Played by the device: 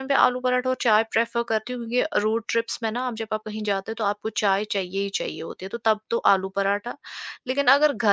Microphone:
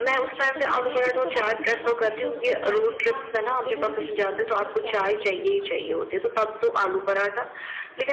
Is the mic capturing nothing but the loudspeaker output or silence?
No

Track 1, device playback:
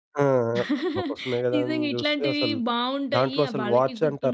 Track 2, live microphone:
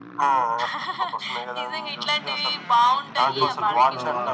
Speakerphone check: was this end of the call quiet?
No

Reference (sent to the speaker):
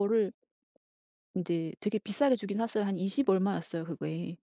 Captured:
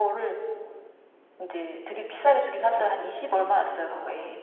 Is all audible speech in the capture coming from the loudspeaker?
No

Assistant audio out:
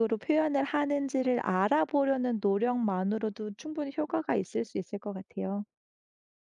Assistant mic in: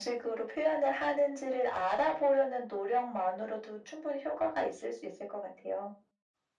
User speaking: No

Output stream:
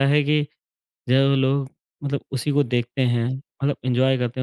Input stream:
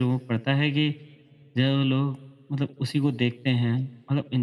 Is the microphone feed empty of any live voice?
Yes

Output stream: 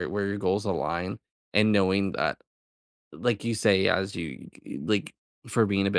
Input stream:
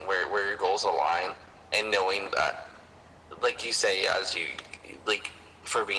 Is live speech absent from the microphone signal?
Yes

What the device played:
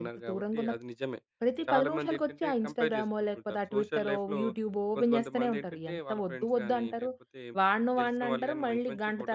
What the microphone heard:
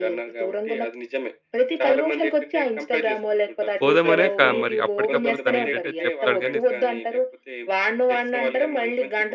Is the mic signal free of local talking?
No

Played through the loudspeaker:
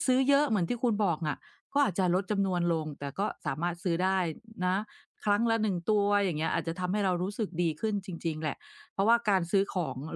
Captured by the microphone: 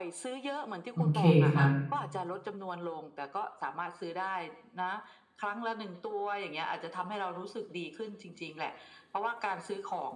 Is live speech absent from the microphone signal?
No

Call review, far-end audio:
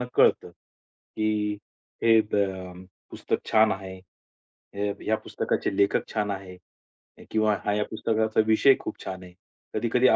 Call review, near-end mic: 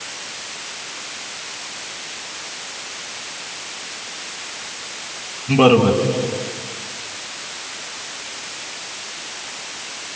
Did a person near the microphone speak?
Yes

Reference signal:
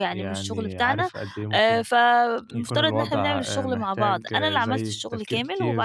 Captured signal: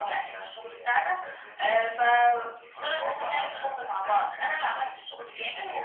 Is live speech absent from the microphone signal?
Yes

